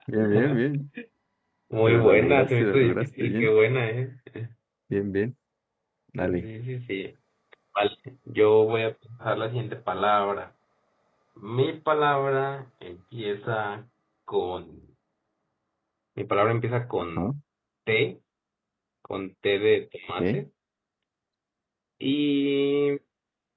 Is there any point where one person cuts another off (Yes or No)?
Yes